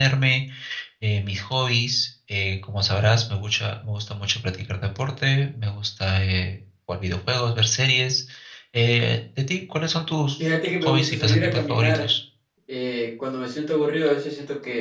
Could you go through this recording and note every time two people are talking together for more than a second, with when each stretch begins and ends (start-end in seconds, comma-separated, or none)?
10.4-12.1